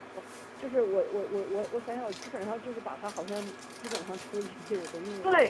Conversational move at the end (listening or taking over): taking over